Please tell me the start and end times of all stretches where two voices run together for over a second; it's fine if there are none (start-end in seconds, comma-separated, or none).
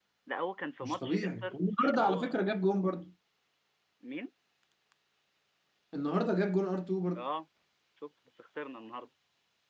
0.8-2.4